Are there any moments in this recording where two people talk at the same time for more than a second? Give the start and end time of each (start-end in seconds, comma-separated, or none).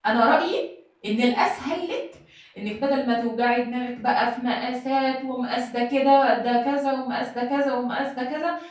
none